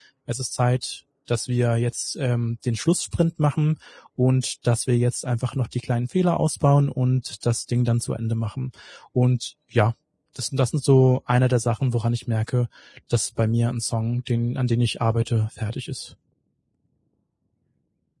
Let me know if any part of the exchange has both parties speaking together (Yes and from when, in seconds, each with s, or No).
No